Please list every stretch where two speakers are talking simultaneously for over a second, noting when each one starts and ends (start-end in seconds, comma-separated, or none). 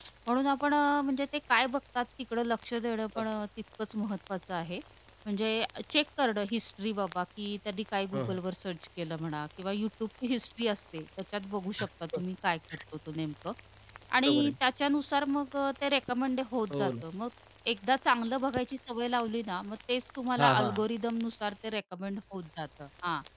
none